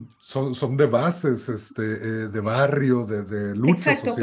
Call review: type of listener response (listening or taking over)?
taking over